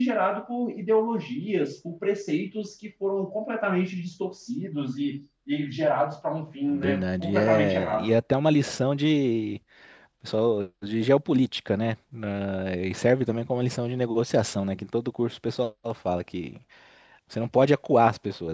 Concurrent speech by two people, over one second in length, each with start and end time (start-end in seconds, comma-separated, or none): 6.7-8.1